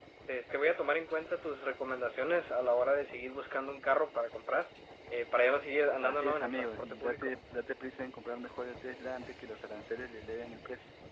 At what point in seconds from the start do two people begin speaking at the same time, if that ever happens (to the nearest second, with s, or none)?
6 s